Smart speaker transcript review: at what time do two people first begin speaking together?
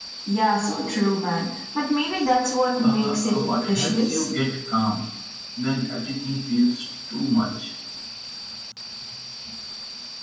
3 s

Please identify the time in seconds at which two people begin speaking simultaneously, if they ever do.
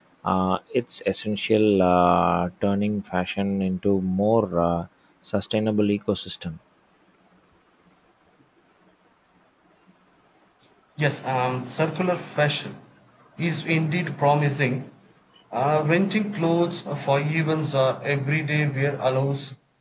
none

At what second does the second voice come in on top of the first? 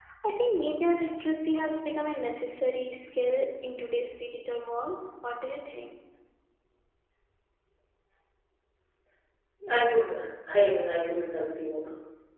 none

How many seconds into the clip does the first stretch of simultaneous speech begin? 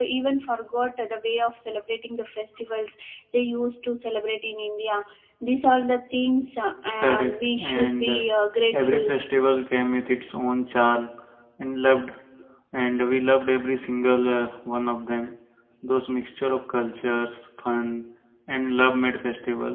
7 s

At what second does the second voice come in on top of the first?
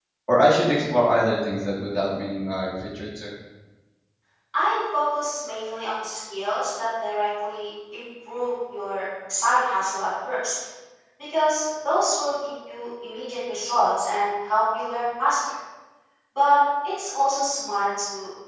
none

